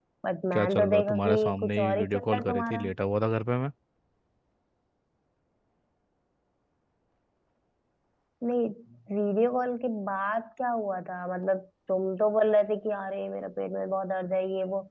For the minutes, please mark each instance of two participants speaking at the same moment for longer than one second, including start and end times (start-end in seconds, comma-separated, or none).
0.5-2.8